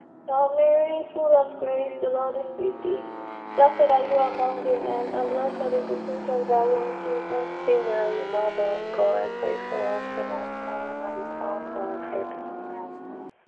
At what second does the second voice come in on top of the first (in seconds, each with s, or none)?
none